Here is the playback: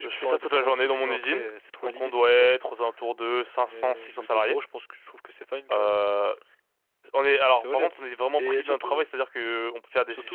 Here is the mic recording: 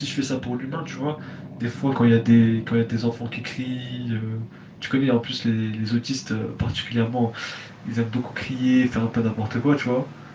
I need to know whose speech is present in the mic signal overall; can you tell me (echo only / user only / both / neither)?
user only